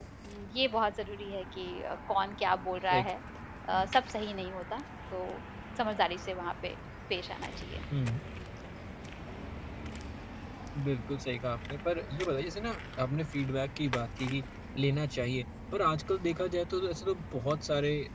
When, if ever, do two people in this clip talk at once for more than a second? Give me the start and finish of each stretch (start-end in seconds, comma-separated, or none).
none